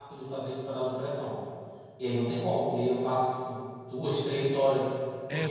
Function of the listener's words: taking over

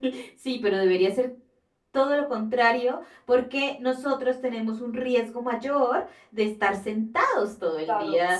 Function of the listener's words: taking over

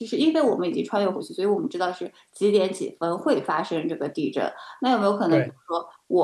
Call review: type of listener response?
listening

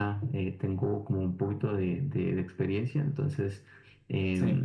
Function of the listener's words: listening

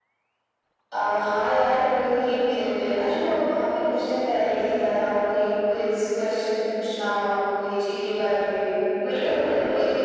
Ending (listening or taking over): taking over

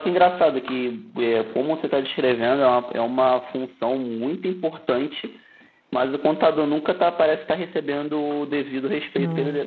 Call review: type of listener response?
listening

